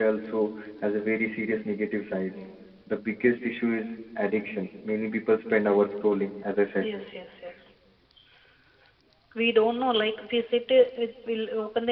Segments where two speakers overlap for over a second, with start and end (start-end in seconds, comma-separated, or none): none